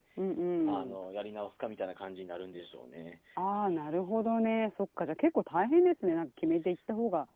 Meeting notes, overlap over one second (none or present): none